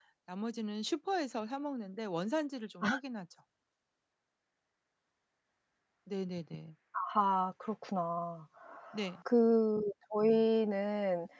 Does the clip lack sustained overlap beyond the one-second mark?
Yes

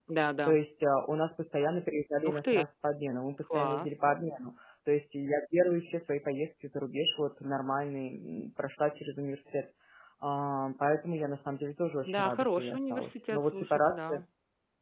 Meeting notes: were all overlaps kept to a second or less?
No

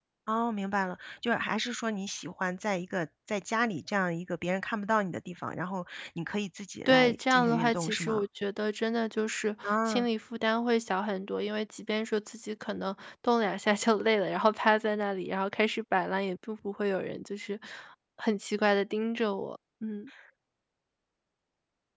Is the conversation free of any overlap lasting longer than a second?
No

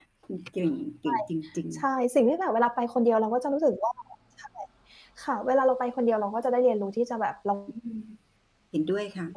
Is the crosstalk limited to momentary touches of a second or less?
Yes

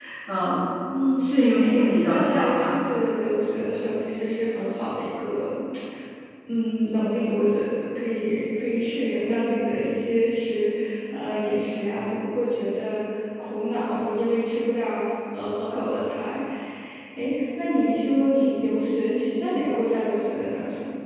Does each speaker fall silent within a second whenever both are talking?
No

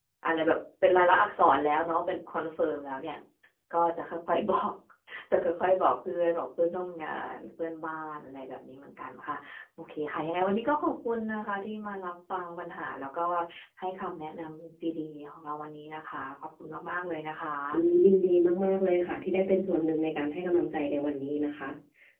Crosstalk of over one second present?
No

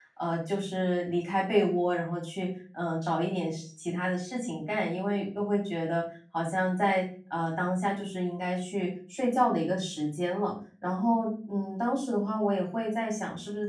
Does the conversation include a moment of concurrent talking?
No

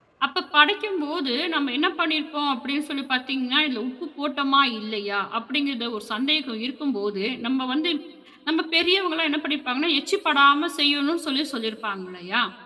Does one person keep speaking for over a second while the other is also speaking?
No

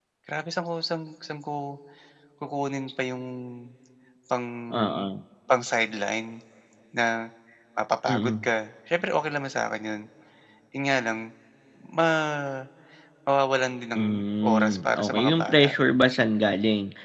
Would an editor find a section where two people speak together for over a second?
Yes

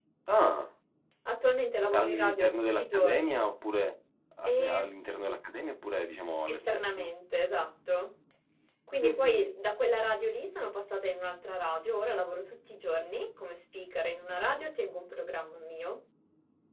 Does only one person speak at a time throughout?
No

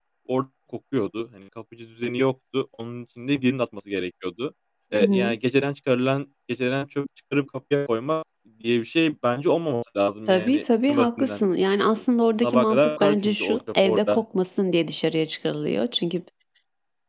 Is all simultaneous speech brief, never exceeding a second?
No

